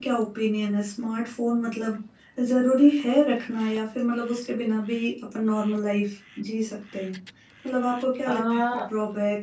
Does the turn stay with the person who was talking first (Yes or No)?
Yes